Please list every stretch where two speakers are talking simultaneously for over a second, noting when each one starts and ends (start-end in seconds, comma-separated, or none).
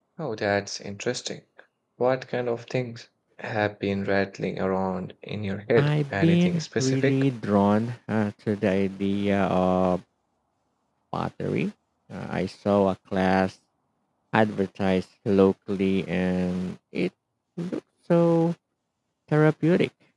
5.8-7.2